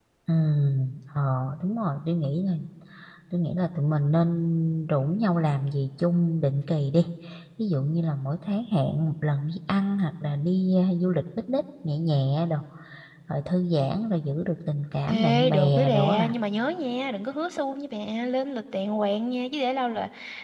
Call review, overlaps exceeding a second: present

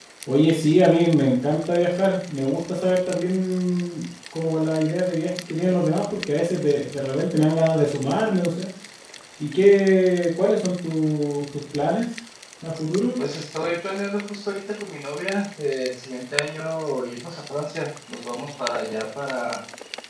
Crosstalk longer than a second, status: none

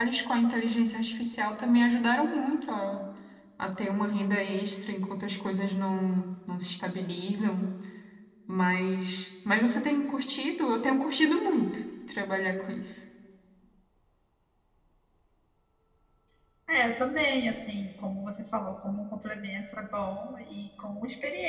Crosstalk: none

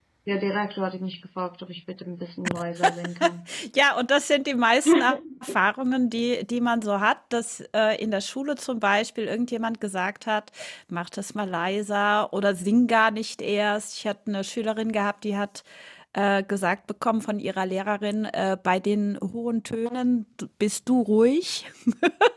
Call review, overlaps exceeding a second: none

